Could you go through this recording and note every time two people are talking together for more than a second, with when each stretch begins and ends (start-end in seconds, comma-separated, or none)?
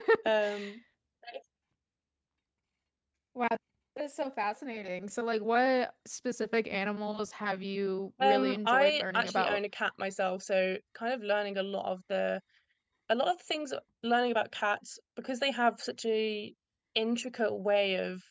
8.2-9.6